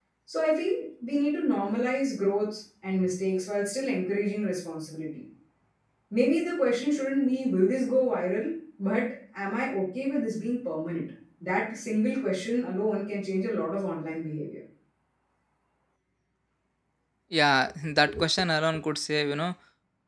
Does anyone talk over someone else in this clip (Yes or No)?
No